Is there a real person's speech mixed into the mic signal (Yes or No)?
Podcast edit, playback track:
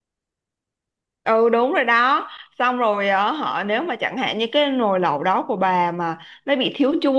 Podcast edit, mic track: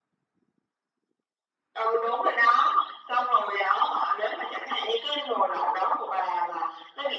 No